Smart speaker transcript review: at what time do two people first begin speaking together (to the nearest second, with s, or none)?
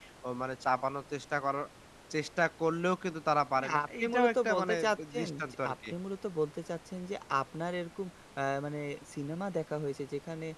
4 s